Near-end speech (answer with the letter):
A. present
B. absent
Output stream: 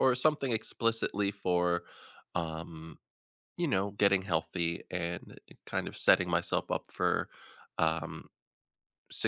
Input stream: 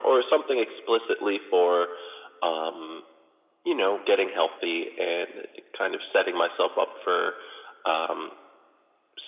B